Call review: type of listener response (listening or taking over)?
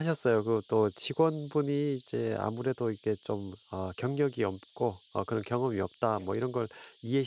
listening